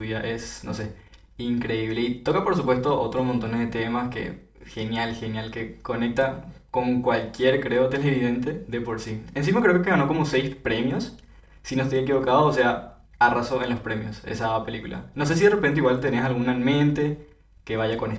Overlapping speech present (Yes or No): No